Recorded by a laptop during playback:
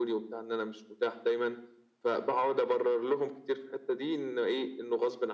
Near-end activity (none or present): none